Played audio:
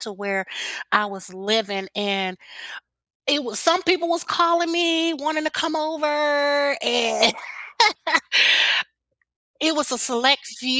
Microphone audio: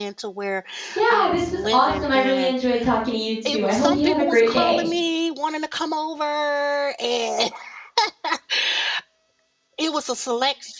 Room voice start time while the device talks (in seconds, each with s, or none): 1.0 s